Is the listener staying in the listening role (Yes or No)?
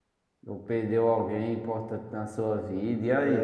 No